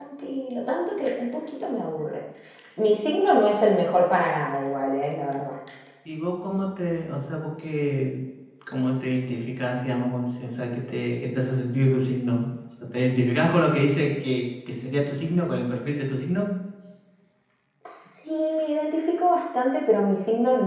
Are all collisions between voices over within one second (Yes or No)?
Yes